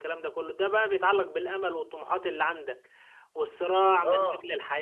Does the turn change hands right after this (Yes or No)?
No